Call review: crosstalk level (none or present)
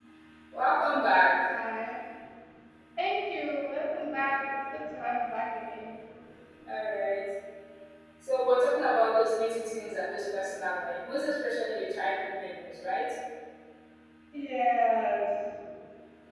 none